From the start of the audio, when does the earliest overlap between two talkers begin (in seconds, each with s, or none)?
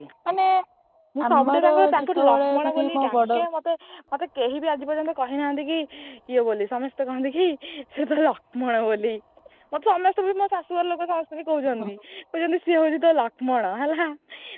1.3 s